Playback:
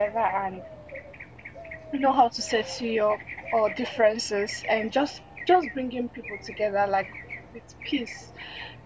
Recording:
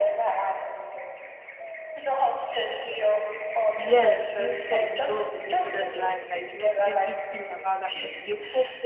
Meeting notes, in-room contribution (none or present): present